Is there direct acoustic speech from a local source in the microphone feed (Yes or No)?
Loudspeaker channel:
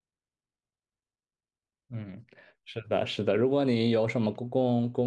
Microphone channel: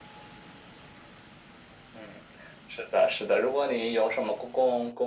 No